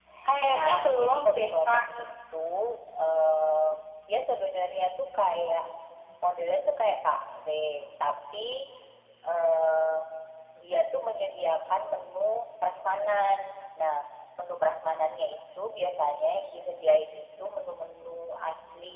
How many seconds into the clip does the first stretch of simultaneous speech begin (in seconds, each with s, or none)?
0.5 s